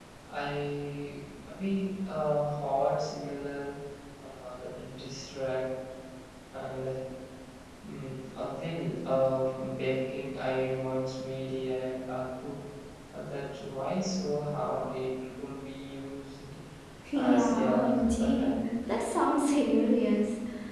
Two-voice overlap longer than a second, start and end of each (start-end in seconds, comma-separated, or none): 17.1-18.6